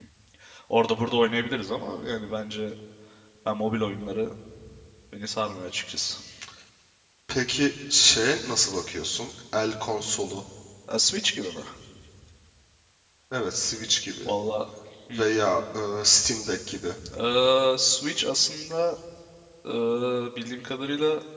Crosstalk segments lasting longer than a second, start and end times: none

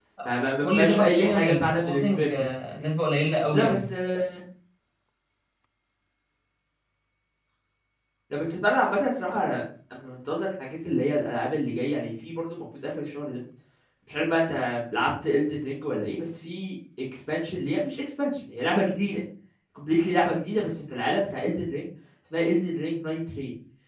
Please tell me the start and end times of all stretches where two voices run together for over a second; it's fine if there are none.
0.6-2.5

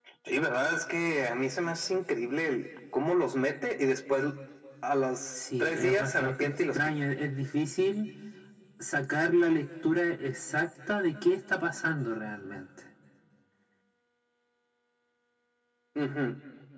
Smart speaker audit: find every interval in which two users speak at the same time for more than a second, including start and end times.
5.3-6.9

